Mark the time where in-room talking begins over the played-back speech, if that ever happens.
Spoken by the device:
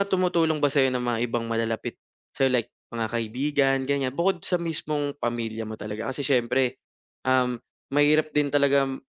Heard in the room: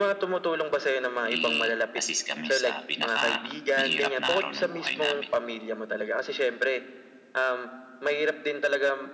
1 s

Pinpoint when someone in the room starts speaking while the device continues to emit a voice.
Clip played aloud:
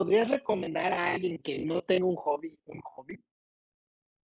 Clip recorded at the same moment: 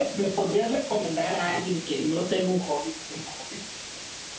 none

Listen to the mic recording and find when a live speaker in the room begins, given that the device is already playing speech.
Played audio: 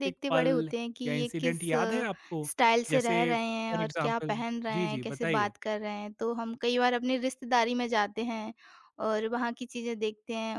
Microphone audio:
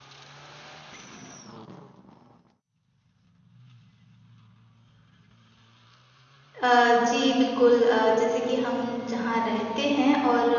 7 s

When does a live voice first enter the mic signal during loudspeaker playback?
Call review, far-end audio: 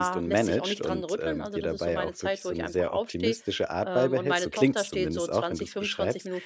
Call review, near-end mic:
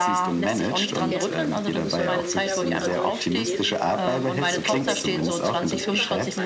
1 s

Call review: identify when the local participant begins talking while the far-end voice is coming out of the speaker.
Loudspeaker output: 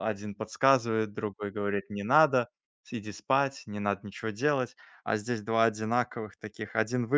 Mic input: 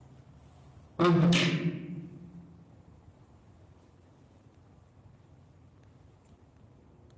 1 s

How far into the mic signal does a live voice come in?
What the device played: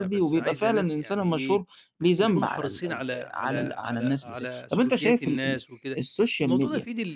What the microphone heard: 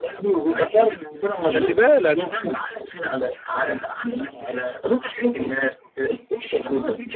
1 s

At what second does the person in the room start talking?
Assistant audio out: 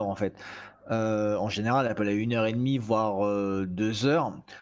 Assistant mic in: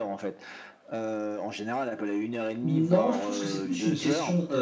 3 s

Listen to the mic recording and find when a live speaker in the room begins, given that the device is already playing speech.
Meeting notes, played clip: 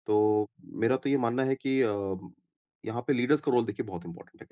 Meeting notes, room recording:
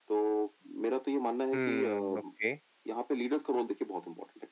2 s

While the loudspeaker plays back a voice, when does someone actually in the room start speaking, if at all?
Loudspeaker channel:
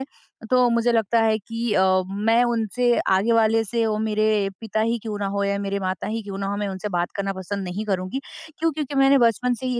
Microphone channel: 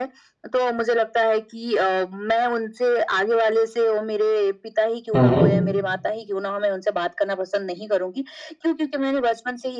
5 s

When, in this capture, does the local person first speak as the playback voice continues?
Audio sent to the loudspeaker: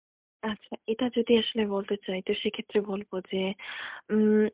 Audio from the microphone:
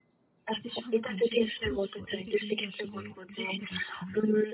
1 s

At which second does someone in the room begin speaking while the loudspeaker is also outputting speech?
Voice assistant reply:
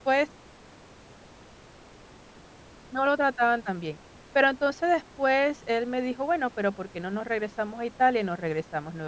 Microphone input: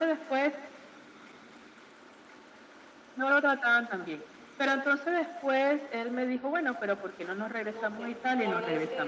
8 s

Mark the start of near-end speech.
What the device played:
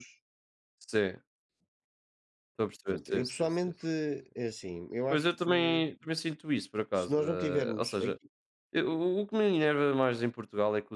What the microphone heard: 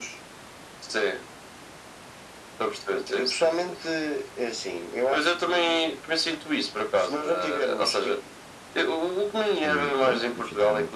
10 s

